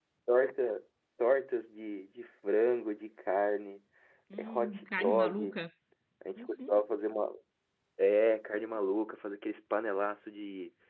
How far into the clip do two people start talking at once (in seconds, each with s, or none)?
4.4 s